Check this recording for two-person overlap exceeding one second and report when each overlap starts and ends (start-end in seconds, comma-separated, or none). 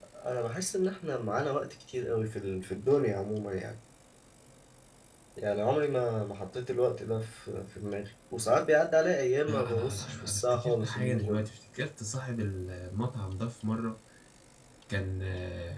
9.5-11.5